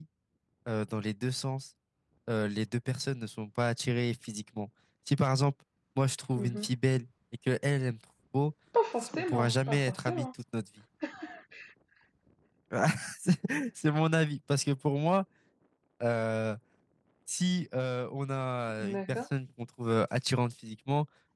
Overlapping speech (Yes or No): Yes